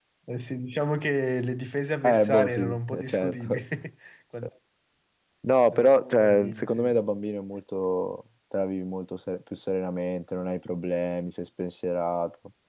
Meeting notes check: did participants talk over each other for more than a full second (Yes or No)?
Yes